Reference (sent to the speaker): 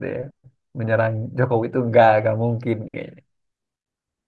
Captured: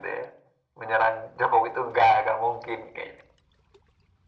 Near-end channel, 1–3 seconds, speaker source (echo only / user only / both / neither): echo only